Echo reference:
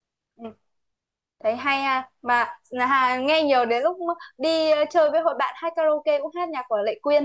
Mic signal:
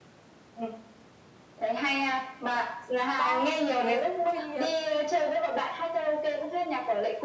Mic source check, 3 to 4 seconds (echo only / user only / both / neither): both